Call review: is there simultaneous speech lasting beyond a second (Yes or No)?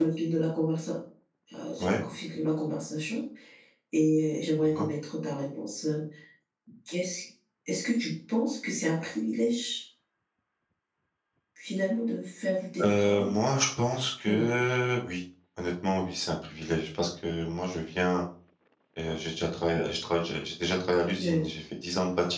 No